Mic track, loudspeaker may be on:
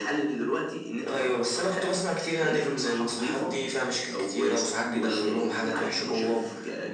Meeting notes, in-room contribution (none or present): none